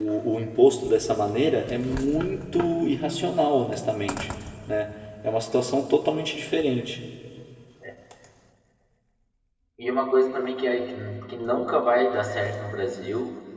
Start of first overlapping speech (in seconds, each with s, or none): none